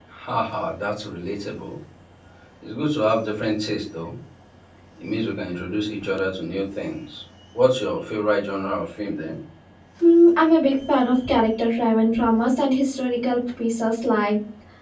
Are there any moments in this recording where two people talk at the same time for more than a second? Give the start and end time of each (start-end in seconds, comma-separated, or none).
none